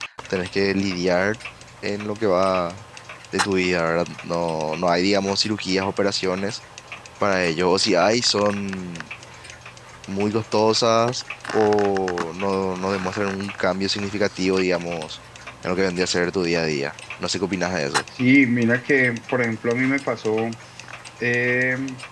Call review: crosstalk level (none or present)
none